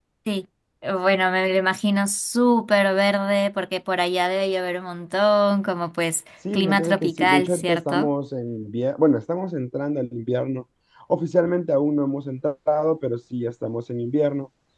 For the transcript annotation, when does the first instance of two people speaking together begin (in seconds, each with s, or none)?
6.5 s